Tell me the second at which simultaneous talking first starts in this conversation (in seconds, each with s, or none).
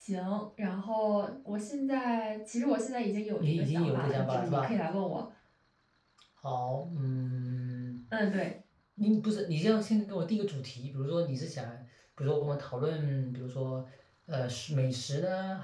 3.4 s